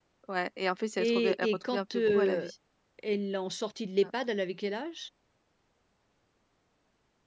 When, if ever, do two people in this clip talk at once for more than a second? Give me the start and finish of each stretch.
1.0-2.5

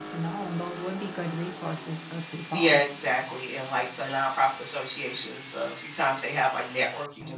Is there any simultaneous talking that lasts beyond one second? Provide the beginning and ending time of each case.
none

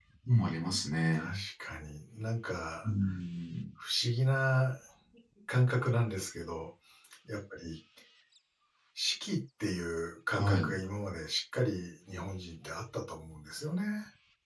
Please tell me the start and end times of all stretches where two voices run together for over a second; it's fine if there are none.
none

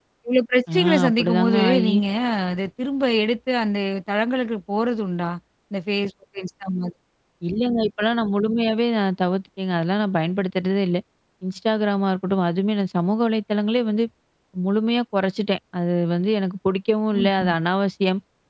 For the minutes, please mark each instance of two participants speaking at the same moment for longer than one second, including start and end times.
0.7-1.9

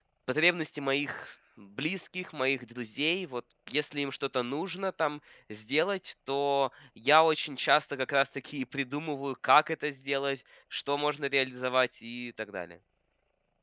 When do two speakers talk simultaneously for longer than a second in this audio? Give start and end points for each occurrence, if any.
none

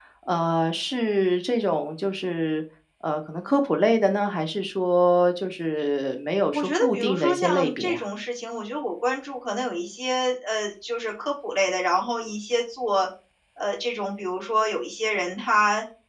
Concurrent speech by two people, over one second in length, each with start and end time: 6.5-8.0

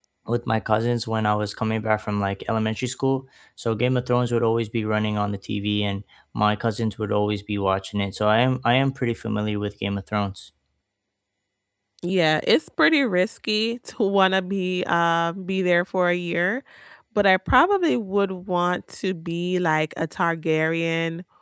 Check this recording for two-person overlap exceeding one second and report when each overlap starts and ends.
none

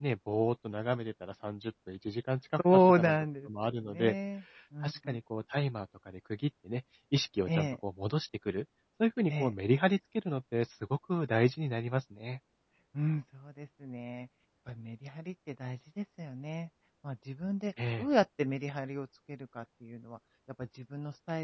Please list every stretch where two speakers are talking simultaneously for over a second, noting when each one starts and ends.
2.9-4.2

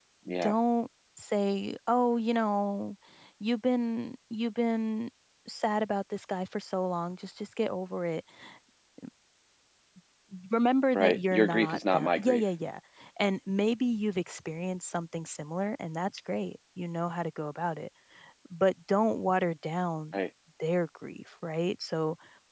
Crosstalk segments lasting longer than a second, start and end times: 10.9-12.4

